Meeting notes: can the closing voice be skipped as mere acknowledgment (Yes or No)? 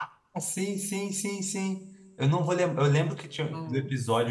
Yes